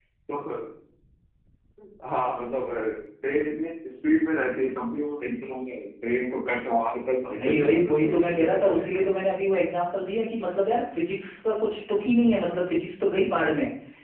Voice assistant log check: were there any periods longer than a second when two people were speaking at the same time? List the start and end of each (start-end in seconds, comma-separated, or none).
7.3-9.1